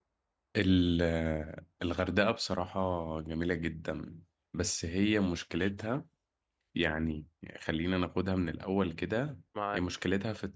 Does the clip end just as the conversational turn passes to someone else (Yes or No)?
No